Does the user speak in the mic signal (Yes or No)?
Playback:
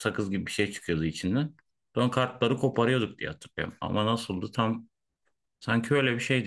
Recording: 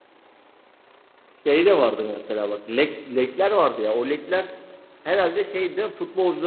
Yes